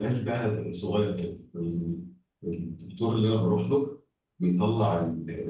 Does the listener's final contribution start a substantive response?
No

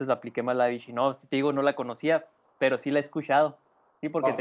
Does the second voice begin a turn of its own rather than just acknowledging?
Yes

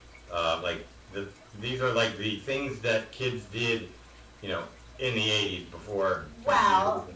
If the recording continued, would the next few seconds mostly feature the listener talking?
Yes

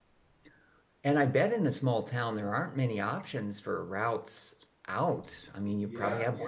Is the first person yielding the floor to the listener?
Yes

